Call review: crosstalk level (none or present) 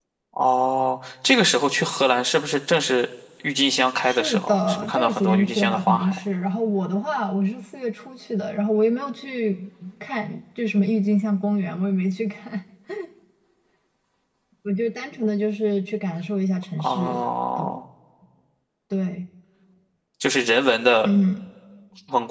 present